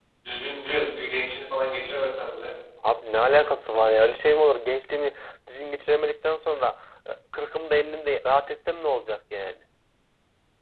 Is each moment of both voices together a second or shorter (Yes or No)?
Yes